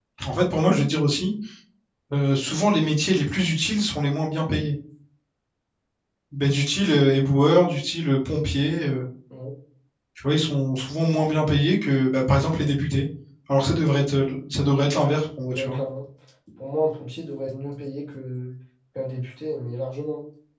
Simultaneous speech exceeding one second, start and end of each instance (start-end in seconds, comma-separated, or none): none